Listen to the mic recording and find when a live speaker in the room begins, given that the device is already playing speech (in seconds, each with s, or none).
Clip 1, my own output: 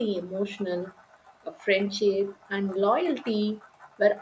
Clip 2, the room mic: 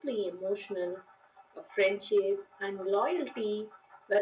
none